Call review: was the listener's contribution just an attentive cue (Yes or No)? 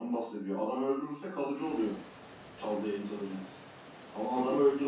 Yes